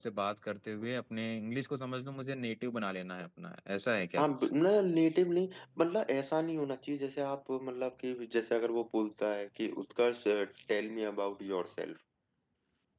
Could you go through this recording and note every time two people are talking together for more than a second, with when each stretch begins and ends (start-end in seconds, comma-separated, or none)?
none